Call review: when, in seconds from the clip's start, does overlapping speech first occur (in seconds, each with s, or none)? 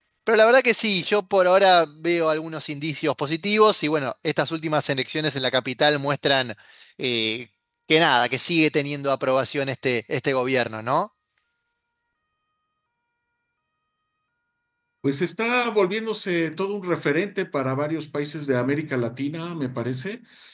none